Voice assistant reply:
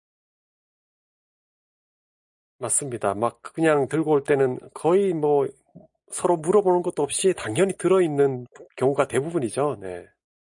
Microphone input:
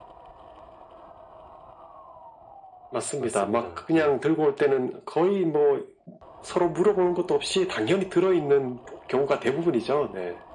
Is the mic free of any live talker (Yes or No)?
No